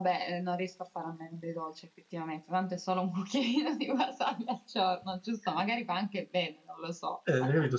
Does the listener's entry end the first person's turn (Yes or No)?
Yes